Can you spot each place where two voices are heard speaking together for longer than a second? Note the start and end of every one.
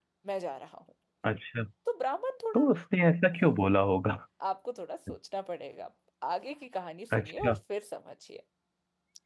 none

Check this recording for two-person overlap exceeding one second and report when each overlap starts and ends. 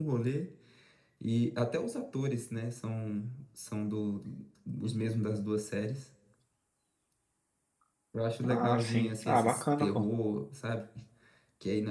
8.4-10.0

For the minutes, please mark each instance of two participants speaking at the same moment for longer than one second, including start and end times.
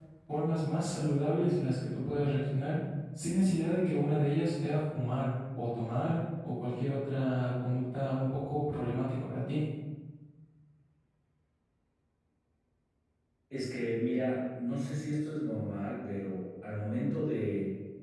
none

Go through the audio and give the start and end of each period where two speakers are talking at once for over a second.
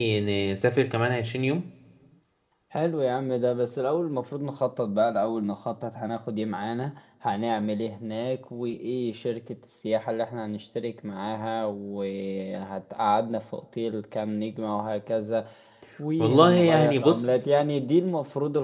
16.2-17.4

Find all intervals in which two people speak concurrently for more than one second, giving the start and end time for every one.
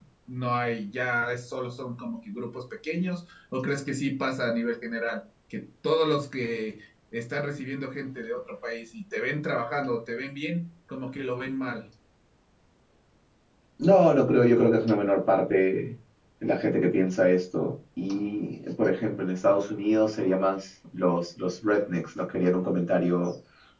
none

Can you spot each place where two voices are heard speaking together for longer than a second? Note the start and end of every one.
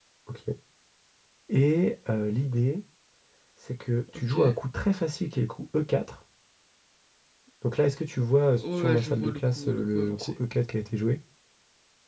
8.8-10.3

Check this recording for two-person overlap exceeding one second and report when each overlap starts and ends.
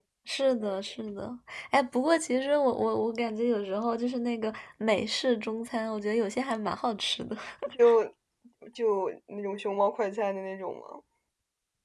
none

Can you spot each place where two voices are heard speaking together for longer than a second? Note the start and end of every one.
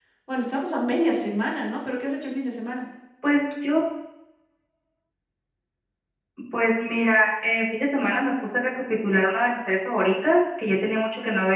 none

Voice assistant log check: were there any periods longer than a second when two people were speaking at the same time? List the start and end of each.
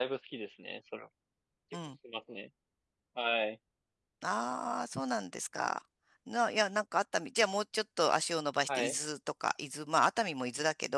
none

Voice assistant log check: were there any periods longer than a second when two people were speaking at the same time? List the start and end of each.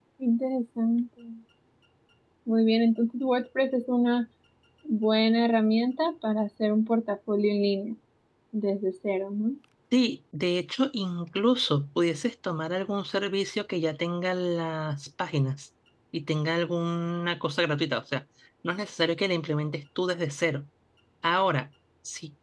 none

